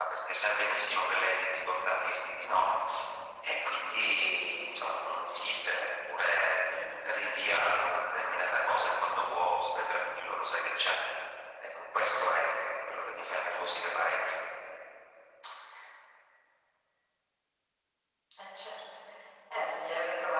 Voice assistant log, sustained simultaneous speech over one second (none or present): none